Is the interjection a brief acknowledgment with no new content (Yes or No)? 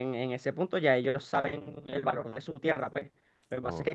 Yes